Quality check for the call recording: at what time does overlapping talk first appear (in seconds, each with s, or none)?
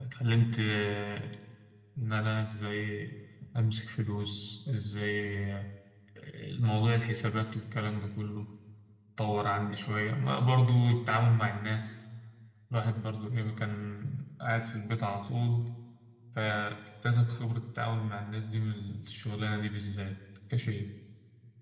none